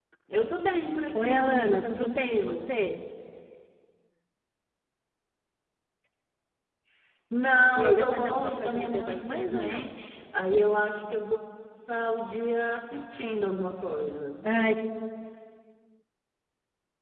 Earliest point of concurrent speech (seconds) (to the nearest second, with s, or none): 1 s